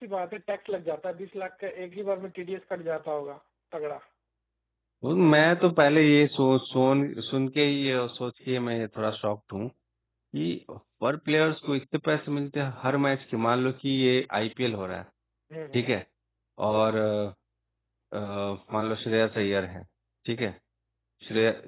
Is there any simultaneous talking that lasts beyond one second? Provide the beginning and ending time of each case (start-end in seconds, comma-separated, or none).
none